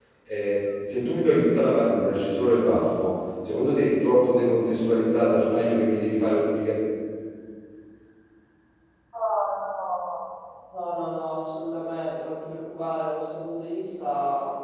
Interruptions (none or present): none